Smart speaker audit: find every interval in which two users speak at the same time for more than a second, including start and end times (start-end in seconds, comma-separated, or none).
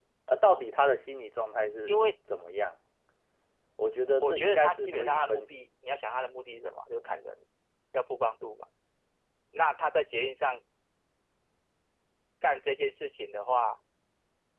4.2-5.5